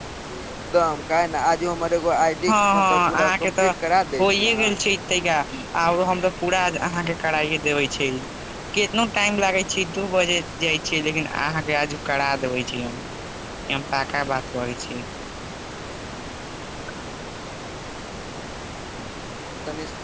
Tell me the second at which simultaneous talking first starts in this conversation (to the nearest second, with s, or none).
2 s